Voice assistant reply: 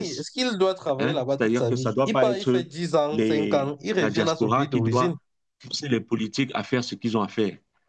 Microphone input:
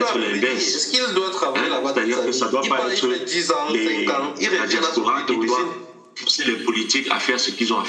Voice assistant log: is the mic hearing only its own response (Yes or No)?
Yes